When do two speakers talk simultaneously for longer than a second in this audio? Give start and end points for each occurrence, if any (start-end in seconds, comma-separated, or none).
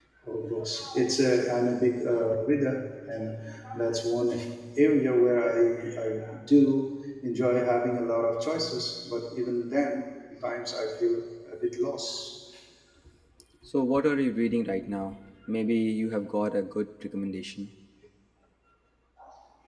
none